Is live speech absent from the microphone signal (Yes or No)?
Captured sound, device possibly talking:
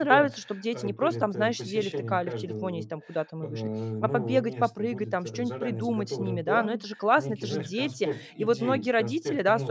No